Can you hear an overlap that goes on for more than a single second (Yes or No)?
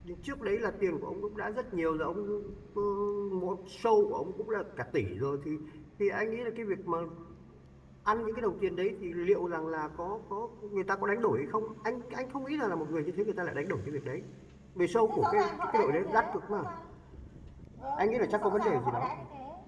Yes